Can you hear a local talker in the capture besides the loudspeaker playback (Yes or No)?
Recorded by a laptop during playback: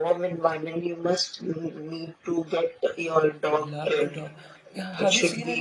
Yes